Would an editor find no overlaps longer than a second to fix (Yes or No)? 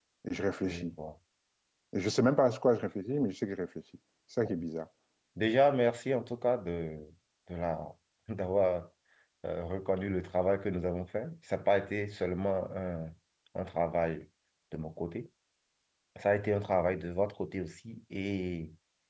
Yes